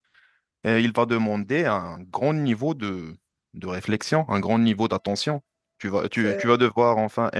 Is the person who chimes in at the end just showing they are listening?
Yes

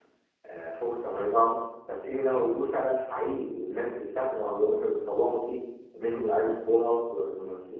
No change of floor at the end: Yes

